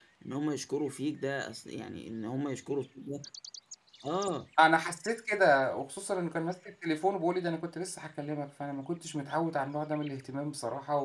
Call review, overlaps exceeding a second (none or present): none